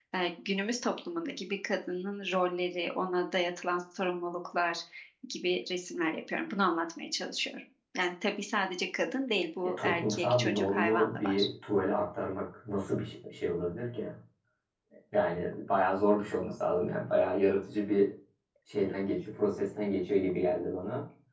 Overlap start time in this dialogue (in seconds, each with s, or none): 9.8 s